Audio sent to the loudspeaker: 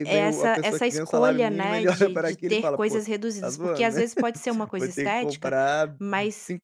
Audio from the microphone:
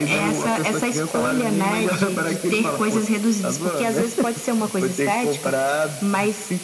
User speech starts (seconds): none

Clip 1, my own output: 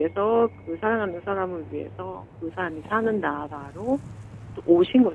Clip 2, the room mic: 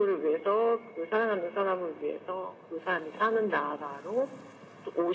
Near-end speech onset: none

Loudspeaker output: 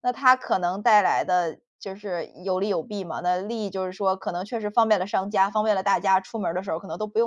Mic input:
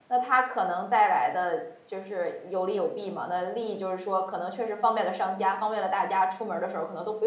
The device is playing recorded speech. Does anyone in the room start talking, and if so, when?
none

